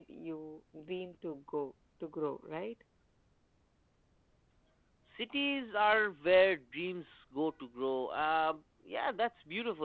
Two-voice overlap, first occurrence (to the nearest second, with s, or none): none